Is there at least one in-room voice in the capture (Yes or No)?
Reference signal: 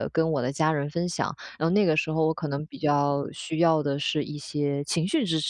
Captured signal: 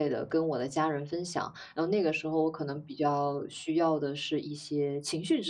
No